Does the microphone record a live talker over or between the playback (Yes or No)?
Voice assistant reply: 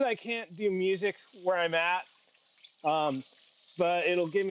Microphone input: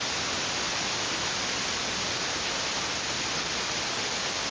No